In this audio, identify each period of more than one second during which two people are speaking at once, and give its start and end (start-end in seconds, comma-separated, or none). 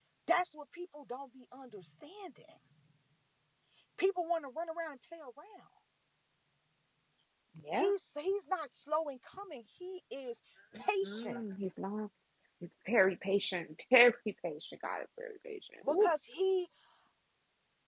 none